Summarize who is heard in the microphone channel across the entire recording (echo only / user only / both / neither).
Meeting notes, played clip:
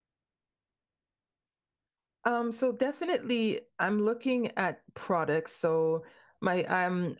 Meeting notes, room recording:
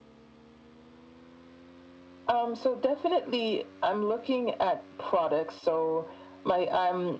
echo only